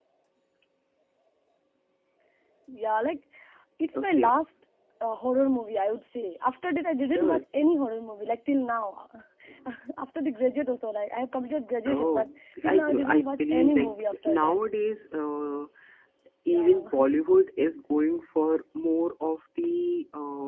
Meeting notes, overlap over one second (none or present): present